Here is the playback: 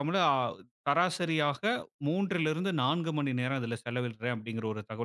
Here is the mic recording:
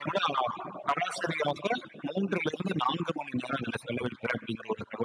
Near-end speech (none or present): none